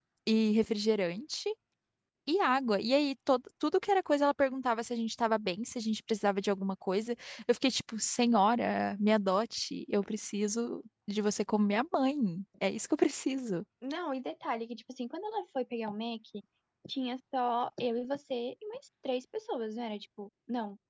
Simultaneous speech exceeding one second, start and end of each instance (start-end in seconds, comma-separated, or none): none